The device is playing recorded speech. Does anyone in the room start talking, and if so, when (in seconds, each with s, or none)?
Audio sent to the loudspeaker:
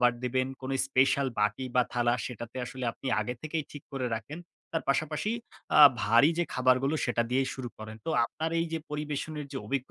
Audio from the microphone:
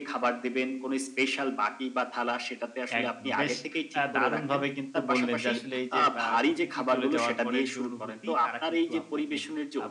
3.0 s